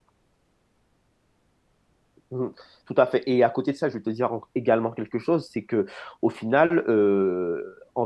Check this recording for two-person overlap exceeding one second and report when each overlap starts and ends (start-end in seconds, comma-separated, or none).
none